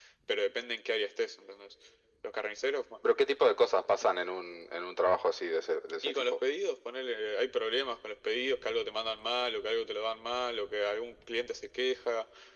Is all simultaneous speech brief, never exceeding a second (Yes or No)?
Yes